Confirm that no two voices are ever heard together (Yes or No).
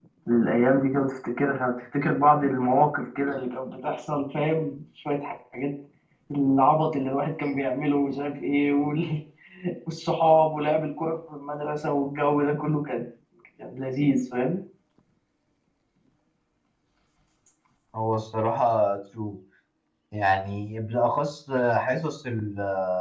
Yes